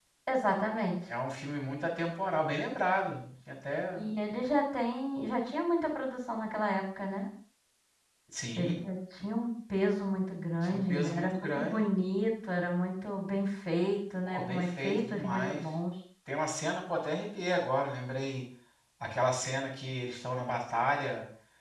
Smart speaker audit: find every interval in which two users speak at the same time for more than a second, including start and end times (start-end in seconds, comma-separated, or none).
10.6-11.8, 14.2-15.6